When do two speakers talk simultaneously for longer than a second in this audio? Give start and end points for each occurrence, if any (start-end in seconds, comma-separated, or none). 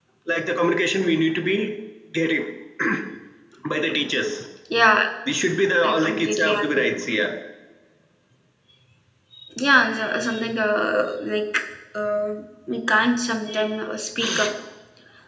5.9-7.3